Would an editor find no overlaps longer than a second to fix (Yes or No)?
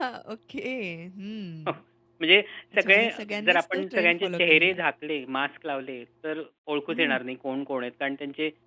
No